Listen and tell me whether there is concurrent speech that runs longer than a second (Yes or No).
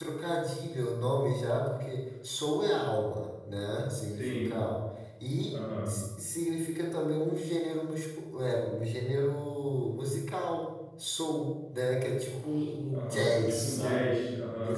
Yes